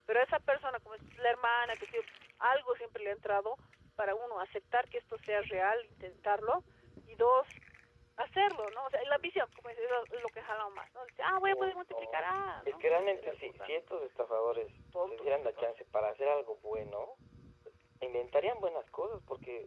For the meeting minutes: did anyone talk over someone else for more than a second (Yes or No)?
Yes